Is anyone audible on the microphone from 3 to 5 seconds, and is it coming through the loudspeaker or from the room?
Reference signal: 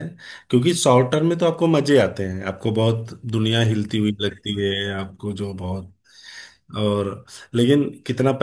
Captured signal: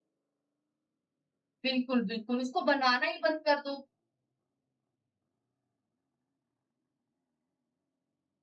user only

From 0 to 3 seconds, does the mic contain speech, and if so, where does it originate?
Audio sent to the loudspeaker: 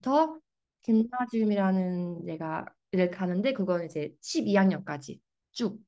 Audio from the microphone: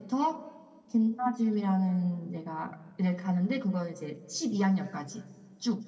echo only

